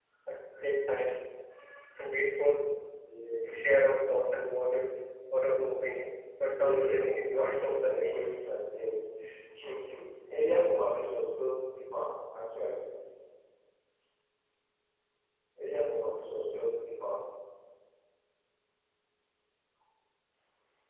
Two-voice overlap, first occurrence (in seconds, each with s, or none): 6.5 s